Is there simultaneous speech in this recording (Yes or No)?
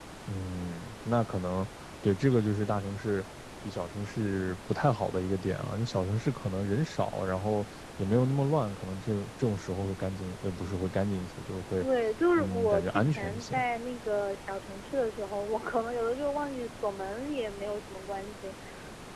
Yes